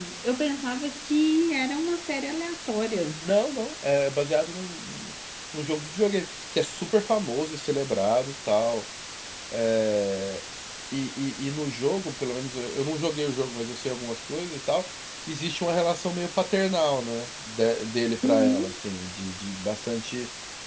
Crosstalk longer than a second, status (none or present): none